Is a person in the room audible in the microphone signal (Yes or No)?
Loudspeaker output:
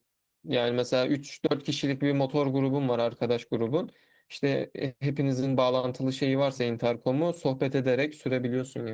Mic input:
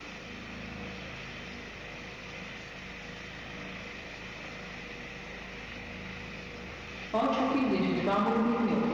Yes